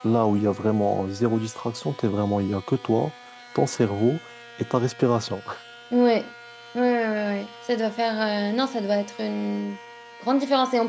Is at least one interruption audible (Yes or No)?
No